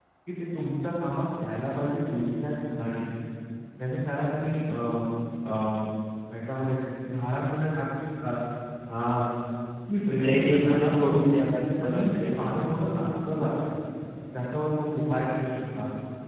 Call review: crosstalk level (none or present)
present